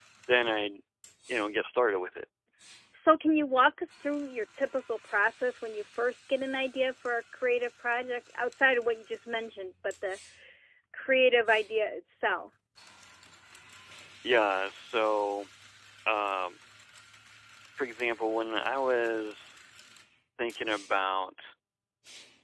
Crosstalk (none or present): none